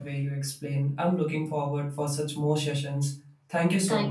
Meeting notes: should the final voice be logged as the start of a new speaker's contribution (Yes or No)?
Yes